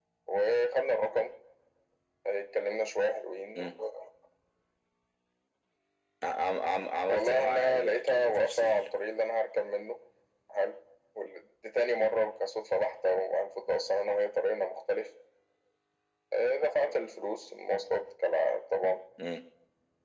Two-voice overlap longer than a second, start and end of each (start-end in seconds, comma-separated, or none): 7.1-8.8